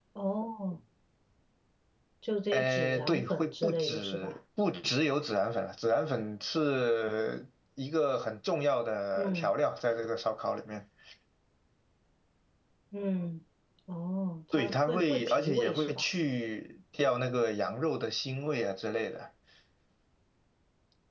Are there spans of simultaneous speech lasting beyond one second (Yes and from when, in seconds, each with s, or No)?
Yes, from 2.5 s